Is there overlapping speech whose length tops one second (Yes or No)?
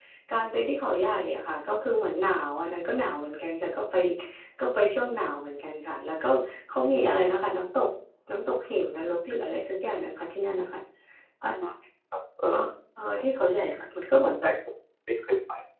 No